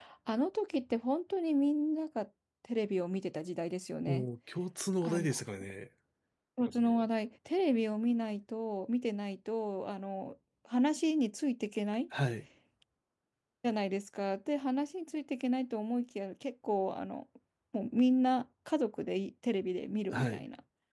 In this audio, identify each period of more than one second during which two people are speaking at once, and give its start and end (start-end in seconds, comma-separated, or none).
none